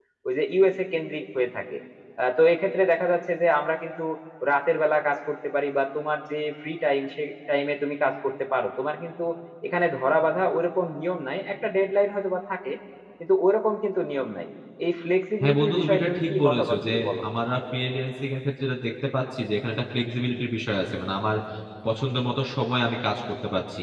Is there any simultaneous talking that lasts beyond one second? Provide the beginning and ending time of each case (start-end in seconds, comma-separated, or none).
15.4-17.2